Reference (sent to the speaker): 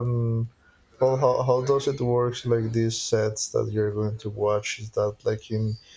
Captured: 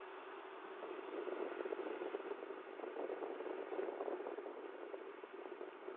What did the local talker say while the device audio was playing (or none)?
none